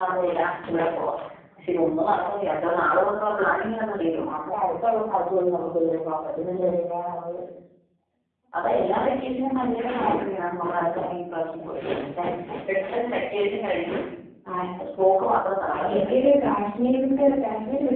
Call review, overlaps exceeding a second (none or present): none